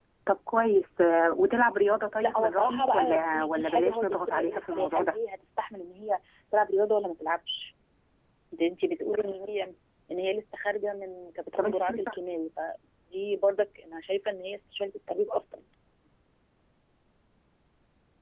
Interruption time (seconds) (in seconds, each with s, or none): 2.2 s